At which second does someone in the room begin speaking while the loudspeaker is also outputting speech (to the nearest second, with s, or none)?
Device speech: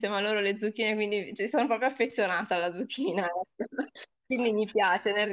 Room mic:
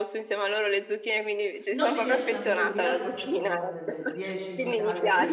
2 s